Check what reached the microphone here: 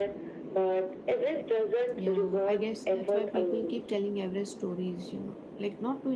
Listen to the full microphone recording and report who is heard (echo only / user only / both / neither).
both